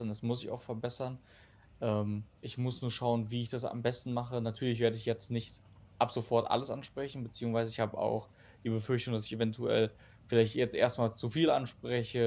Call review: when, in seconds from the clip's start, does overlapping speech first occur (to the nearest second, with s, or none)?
none